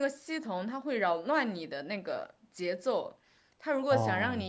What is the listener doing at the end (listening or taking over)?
listening